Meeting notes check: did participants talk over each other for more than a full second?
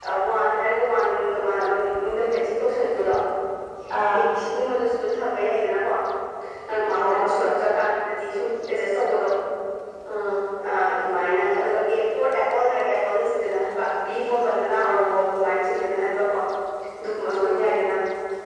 No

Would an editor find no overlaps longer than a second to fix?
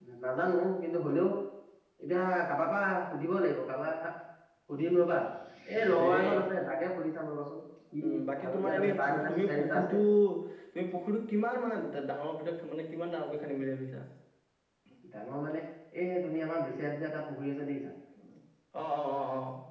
No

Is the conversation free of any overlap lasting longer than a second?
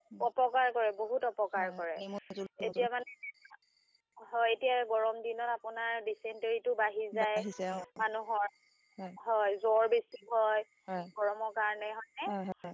Yes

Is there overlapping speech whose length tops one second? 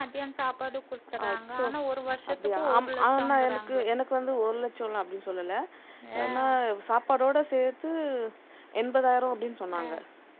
Yes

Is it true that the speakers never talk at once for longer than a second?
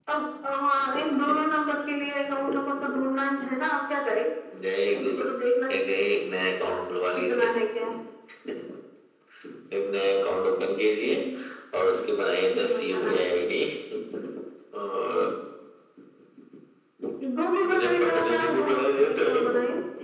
No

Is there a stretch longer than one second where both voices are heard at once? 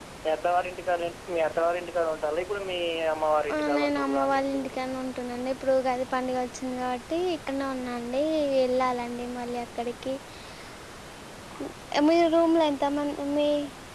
Yes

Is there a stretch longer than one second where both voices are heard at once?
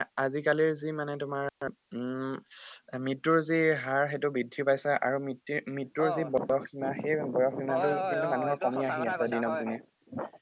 Yes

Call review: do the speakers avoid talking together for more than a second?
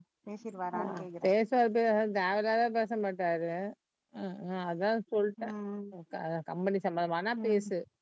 Yes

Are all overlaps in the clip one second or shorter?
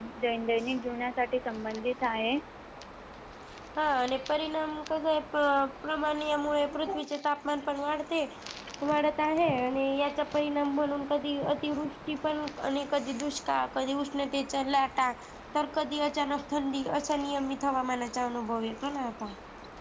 Yes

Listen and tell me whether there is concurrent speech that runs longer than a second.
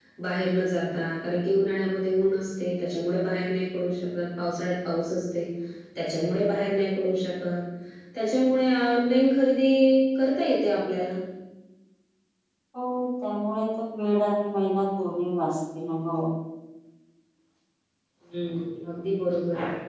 No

